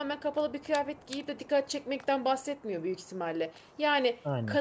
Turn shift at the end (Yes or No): No